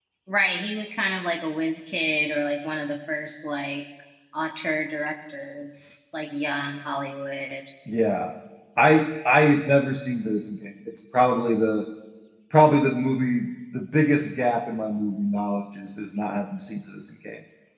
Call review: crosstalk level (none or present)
none